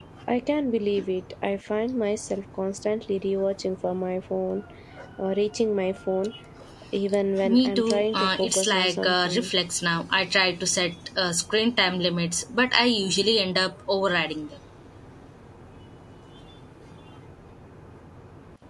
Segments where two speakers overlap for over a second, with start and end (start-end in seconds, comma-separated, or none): 7.4-9.5